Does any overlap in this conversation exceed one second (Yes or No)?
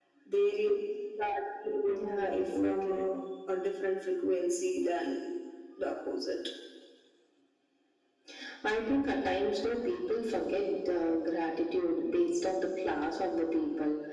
Yes